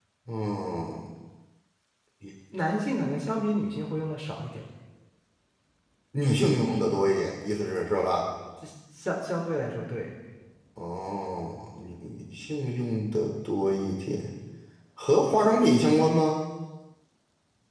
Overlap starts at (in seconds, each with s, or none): none